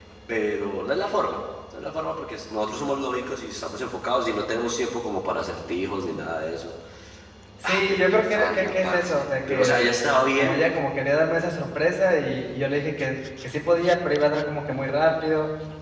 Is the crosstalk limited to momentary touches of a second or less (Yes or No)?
No